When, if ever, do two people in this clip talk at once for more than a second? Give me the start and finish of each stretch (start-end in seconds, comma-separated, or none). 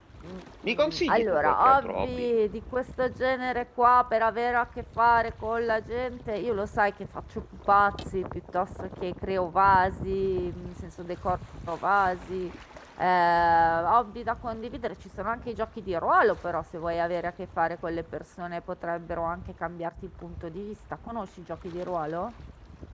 0.7-2.3